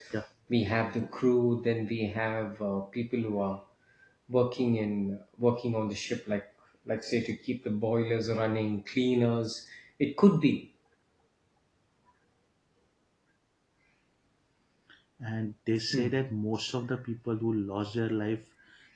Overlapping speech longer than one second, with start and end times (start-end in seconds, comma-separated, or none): none